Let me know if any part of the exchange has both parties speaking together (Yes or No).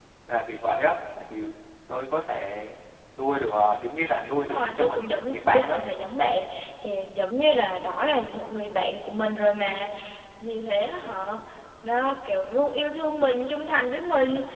Yes